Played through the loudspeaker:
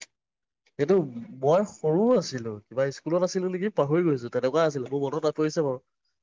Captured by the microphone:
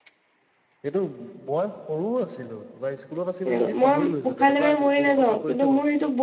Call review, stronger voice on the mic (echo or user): user